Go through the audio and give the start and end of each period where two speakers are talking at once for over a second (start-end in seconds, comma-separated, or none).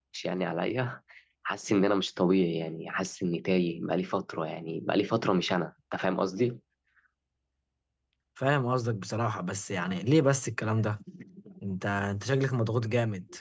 none